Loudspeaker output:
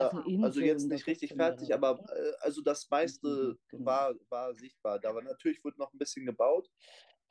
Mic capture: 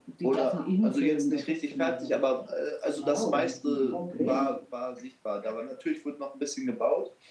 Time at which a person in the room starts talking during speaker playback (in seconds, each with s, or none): 2.9 s